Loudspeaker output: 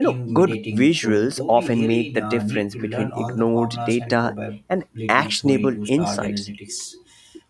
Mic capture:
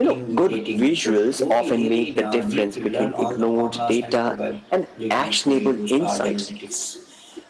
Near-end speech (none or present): none